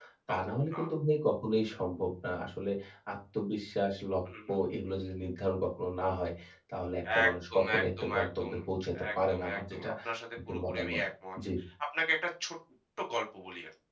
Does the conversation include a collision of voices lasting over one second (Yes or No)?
Yes